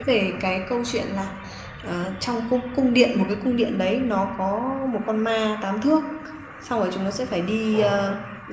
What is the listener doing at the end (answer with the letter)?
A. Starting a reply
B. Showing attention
B